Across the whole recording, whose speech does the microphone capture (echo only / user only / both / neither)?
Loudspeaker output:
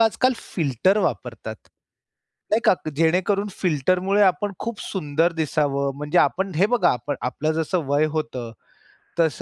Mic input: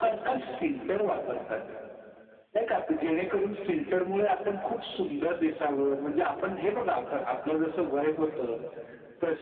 echo only